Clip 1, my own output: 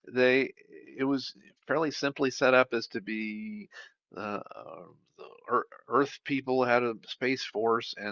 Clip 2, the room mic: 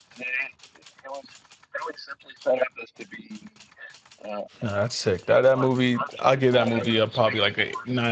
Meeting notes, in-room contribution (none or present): present